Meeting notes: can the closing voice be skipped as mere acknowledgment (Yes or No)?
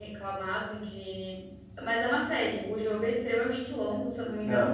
Yes